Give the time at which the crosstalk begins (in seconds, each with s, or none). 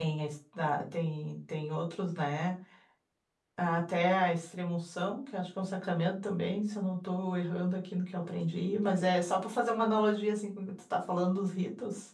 none